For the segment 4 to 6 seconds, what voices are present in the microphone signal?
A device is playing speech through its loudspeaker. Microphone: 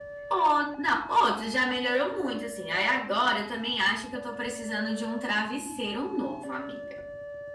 echo only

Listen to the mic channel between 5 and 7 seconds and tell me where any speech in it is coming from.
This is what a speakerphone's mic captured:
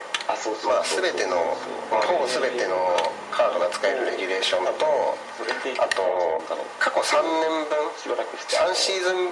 echo only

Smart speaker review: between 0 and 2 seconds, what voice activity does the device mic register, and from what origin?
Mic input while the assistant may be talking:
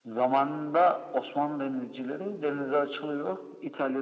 echo only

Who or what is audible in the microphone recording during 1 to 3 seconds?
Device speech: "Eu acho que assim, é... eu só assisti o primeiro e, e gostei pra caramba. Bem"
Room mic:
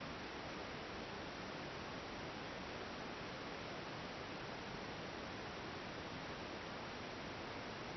neither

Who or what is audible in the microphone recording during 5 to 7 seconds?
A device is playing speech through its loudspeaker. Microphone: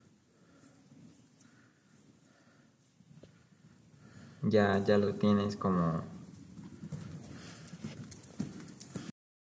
user only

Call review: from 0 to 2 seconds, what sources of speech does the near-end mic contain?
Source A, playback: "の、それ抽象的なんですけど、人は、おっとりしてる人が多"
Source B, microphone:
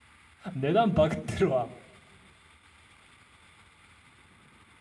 user only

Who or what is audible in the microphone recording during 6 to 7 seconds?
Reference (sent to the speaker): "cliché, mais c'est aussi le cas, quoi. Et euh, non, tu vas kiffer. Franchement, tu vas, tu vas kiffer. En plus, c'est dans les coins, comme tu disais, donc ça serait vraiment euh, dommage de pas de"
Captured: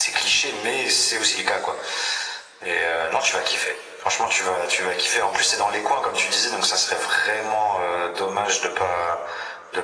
echo only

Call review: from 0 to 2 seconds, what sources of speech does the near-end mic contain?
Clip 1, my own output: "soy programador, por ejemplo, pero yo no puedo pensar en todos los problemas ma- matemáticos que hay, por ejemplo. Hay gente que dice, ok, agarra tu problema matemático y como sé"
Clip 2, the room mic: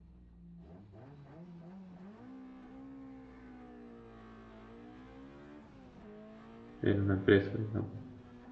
neither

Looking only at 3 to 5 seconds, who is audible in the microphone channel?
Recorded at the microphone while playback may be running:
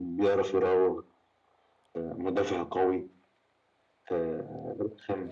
echo only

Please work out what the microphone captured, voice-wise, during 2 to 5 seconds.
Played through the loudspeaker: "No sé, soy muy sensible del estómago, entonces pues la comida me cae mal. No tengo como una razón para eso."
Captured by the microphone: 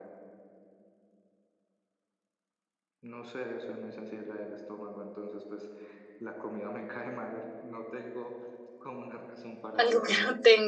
echo only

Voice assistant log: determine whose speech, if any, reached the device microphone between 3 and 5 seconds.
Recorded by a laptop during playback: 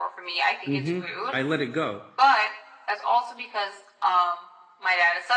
echo only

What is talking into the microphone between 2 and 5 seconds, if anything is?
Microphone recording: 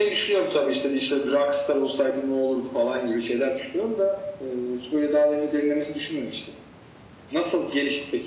echo only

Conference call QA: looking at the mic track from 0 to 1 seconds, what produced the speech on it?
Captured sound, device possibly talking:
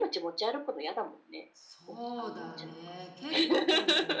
echo only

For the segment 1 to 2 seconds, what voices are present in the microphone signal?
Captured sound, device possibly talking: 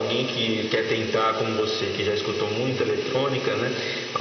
echo only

